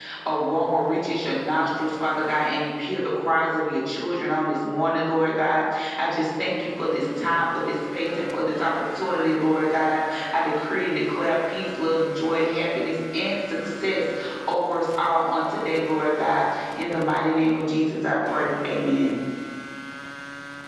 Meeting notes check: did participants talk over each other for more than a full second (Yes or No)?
No